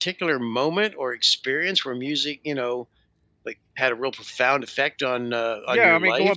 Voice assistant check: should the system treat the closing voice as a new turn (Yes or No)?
Yes